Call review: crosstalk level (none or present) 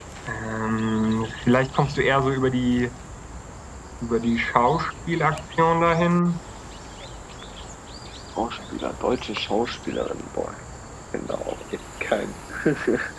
none